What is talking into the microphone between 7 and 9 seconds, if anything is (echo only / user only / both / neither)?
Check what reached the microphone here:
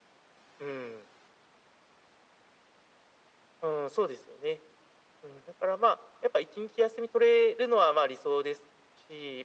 echo only